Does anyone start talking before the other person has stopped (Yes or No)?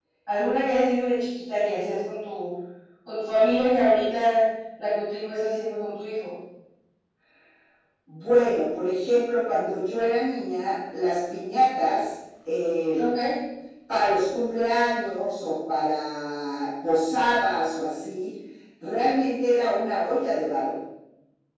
No